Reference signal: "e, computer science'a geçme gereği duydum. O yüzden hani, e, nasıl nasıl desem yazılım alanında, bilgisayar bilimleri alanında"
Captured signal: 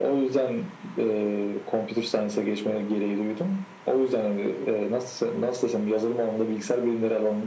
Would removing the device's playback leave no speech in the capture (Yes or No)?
Yes